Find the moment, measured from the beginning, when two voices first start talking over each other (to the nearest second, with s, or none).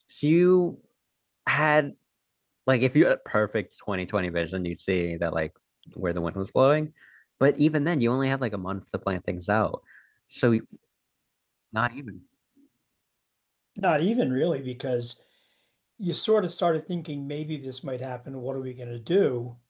none